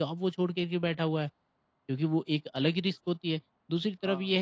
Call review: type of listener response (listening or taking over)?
listening